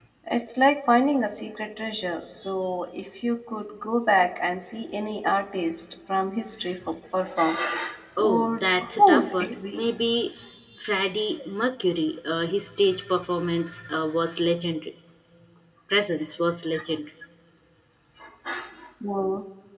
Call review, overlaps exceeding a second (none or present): present